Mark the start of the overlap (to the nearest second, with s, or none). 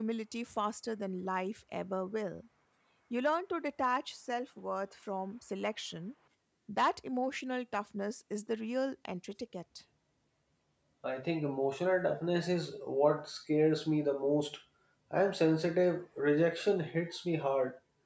none